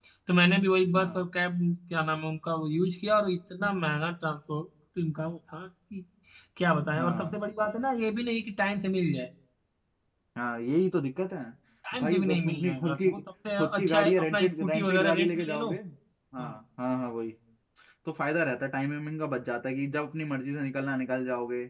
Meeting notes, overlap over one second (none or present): present